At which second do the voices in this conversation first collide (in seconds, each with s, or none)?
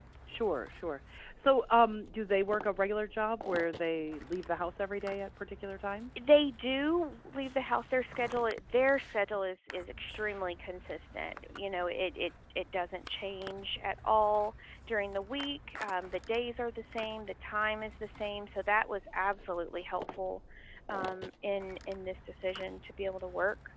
none